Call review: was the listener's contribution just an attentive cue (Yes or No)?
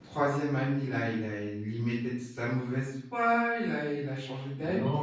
No